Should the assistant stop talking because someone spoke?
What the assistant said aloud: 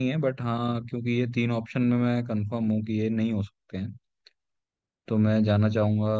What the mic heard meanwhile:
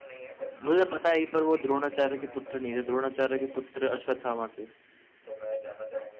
Yes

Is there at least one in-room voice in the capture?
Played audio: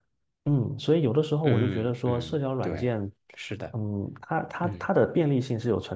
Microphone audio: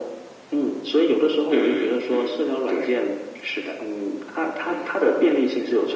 No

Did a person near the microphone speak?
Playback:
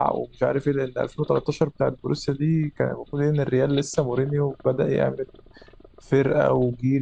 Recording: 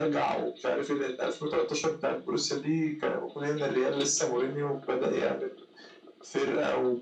No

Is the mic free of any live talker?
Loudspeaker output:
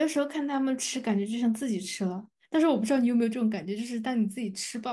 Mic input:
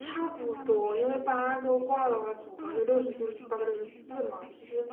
No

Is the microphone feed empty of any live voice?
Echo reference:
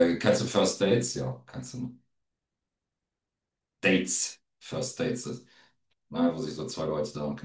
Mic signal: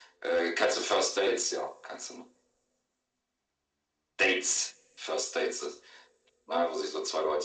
Yes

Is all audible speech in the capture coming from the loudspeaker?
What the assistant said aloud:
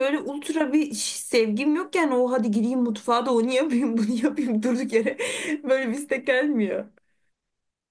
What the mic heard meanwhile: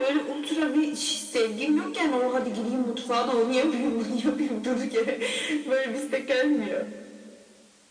Yes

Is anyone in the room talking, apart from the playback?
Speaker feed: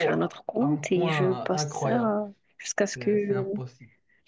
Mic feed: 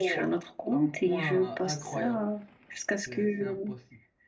No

